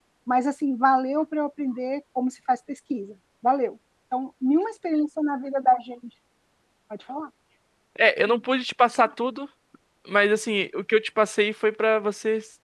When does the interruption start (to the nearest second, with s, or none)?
none